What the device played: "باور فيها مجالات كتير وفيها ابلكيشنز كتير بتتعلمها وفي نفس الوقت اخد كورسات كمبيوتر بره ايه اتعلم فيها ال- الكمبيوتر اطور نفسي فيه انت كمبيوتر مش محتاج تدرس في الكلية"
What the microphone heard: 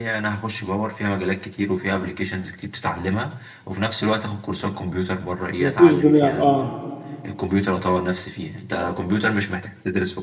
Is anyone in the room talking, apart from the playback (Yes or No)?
Yes